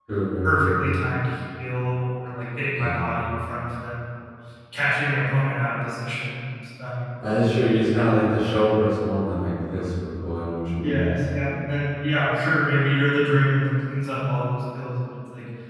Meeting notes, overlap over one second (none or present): none